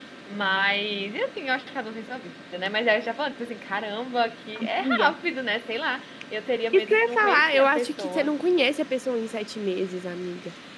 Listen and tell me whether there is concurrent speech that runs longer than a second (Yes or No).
Yes